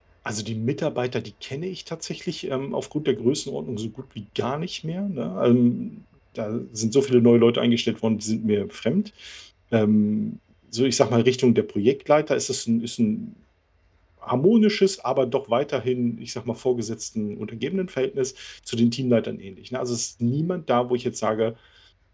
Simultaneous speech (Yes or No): No